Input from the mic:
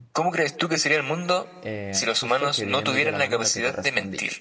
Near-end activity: present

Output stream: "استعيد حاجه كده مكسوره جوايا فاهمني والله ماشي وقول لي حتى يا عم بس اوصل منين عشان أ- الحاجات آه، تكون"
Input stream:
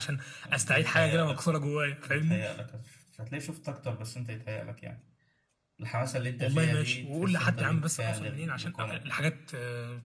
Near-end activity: present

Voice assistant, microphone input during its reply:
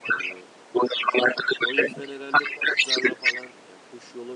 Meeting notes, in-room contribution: present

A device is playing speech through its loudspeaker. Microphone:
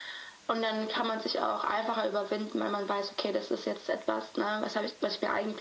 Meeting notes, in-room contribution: none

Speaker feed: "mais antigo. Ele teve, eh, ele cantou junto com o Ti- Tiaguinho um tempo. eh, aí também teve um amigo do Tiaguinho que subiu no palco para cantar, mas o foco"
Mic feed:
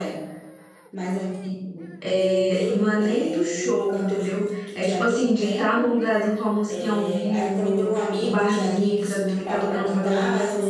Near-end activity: present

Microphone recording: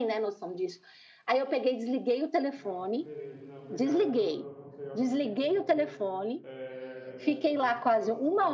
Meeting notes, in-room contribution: present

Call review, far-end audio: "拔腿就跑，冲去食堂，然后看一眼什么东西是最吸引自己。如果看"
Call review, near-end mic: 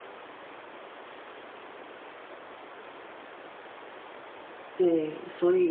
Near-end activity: present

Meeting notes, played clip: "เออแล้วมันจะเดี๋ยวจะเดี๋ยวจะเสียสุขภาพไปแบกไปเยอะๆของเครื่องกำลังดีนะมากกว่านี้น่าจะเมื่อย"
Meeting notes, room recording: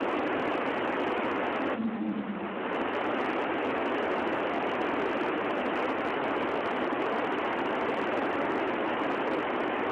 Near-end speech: present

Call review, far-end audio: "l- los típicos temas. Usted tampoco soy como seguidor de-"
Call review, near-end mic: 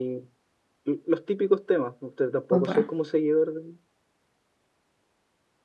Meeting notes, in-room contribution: present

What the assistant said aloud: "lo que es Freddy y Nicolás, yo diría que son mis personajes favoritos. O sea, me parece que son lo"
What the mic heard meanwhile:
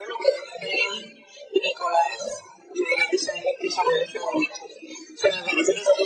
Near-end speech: none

